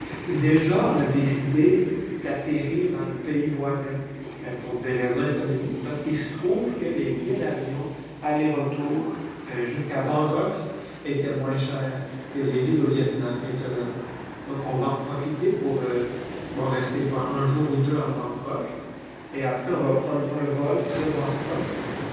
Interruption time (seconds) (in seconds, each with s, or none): none